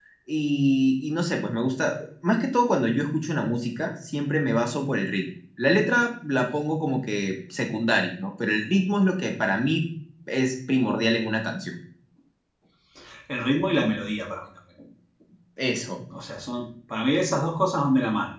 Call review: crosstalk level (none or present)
none